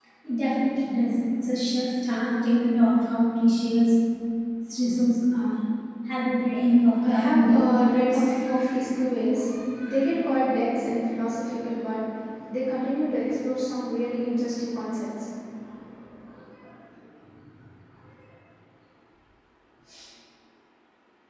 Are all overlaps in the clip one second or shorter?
No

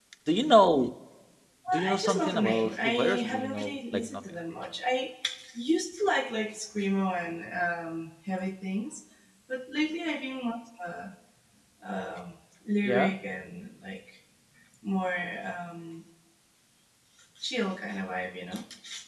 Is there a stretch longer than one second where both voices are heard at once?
Yes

